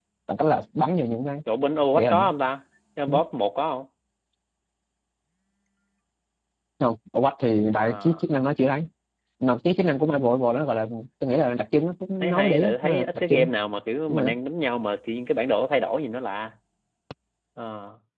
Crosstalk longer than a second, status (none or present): present